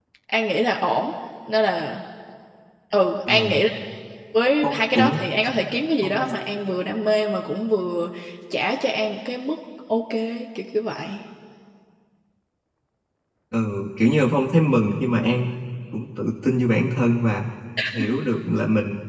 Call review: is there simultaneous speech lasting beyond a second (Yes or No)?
No